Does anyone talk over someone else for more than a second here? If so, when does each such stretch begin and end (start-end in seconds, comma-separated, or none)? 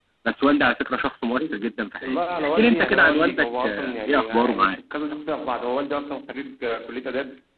2.0-4.8